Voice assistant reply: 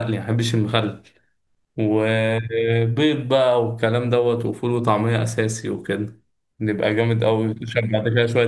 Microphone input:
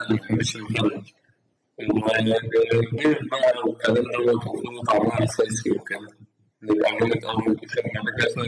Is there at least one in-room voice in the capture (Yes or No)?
No